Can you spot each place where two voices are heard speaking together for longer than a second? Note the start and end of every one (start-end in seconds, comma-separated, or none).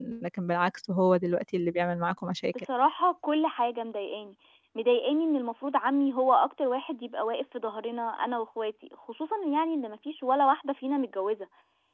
none